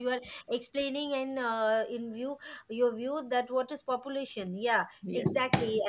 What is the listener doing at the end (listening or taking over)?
listening